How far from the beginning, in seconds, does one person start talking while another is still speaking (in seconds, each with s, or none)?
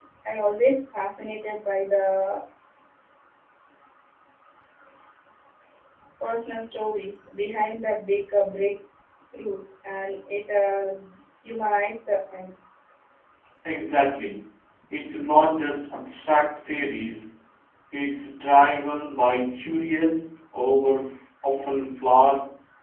none